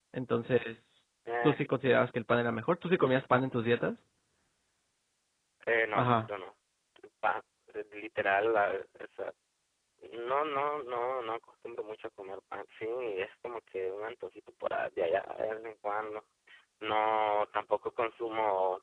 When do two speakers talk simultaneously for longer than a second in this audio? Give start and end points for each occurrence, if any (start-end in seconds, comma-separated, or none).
none